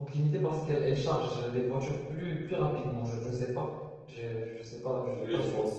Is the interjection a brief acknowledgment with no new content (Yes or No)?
No